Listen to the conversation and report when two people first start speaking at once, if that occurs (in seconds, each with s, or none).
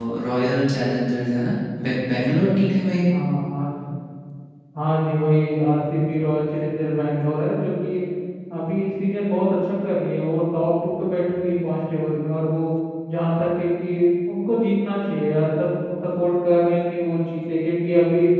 none